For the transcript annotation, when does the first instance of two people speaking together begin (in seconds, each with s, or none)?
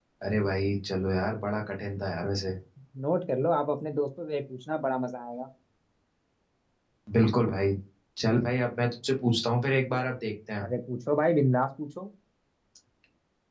none